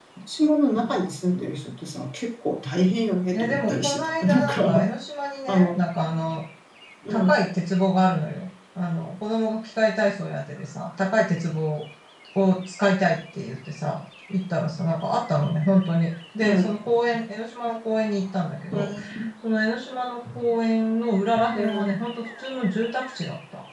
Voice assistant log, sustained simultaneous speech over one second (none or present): present